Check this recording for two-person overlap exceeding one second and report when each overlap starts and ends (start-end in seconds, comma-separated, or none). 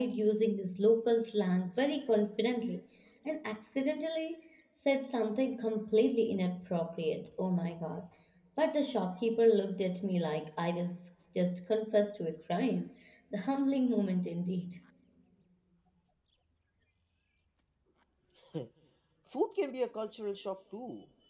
none